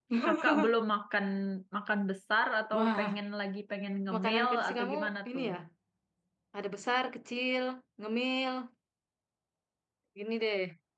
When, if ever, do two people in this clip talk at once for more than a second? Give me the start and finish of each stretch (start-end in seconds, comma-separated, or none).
4.1-5.5